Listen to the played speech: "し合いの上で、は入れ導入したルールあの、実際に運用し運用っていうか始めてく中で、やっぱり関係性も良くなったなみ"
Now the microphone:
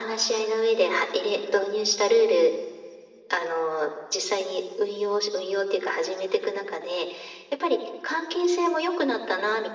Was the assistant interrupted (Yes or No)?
No